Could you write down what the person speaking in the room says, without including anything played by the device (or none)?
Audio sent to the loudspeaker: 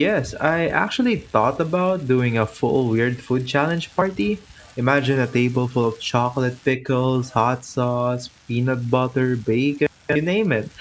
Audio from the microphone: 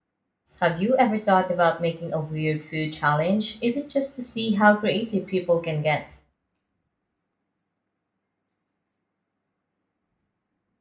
Have you ever thought about making a weird food challenge, even just to see how creative people can get?